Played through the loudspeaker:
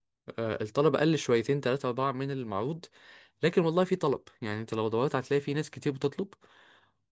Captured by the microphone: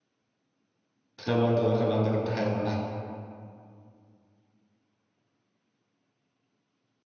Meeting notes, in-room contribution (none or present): present